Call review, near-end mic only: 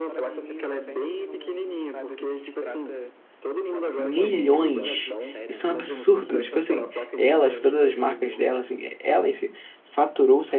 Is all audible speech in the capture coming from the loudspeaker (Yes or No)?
No